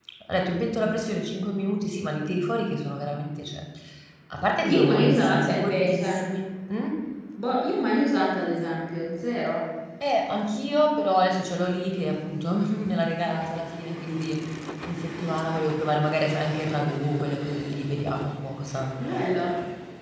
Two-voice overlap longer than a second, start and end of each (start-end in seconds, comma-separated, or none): 4.7-6.1